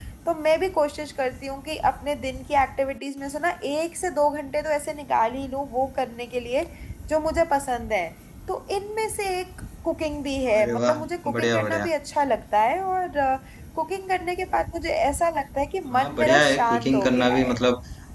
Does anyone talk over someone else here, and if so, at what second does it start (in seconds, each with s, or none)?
10.5 s